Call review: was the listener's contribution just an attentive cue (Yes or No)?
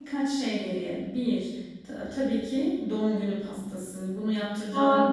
Yes